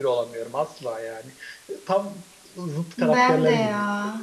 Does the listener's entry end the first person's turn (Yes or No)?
Yes